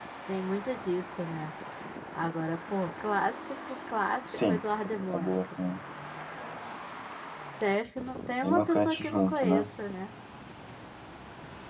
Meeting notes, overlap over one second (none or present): present